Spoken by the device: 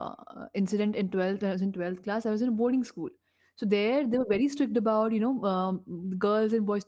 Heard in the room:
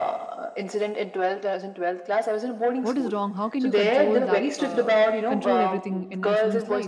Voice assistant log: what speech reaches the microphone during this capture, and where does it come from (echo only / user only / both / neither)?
both